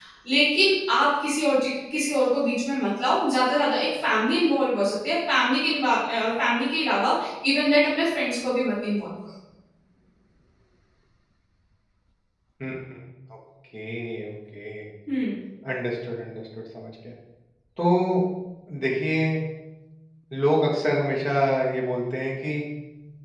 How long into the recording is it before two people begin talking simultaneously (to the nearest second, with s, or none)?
none